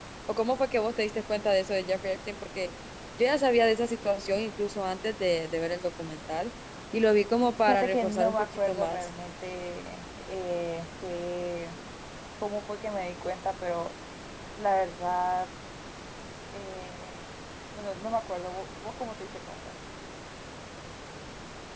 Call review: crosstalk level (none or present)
present